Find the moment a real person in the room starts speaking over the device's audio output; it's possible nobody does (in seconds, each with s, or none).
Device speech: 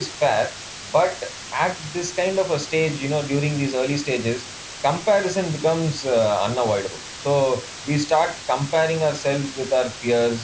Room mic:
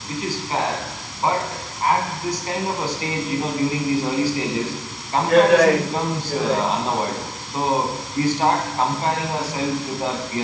5.2 s